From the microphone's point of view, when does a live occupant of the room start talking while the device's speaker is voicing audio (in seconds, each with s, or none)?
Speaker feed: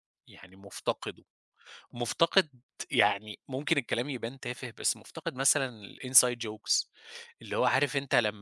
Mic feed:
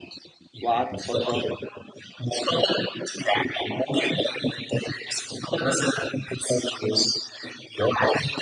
0.6 s